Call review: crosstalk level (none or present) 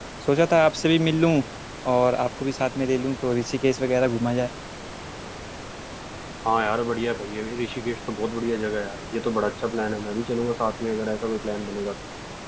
none